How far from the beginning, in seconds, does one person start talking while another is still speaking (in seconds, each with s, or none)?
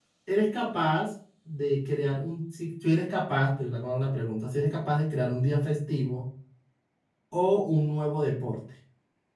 none